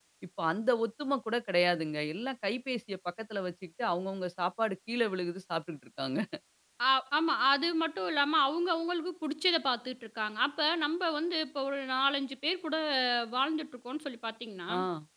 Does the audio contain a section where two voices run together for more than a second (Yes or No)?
No